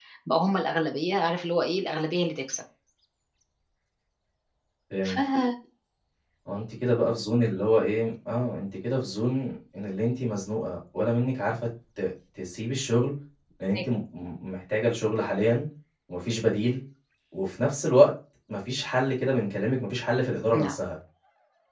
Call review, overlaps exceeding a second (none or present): none